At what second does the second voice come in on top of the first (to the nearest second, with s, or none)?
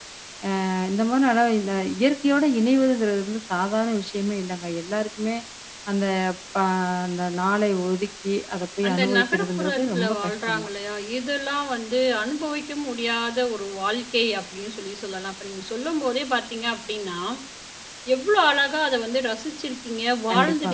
9 s